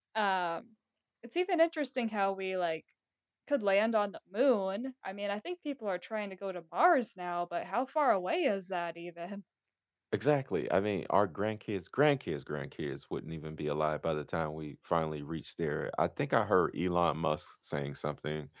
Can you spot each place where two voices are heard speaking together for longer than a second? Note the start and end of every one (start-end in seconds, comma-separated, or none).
none